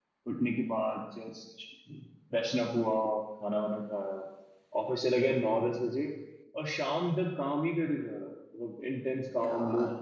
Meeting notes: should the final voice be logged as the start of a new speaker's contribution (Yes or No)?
Yes